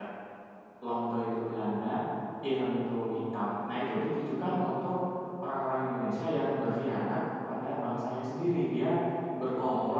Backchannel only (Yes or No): Yes